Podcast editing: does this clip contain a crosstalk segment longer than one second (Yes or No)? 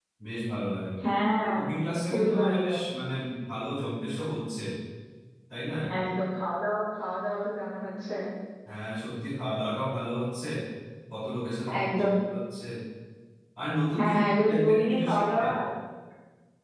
Yes